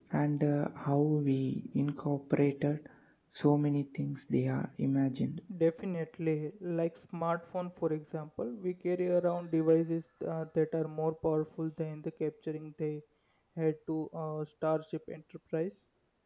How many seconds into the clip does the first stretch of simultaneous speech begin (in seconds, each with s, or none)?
none